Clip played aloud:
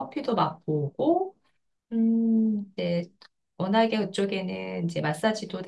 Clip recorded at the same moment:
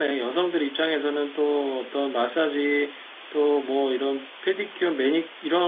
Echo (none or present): none